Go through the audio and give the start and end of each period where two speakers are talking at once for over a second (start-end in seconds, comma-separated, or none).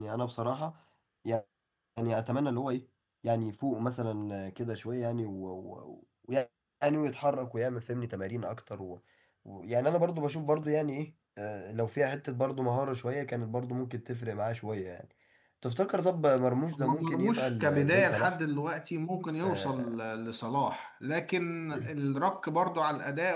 16.7-18.3